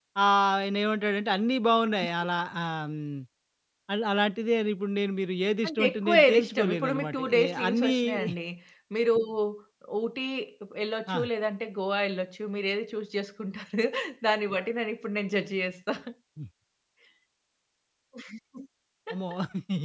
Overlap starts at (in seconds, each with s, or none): 5.6 s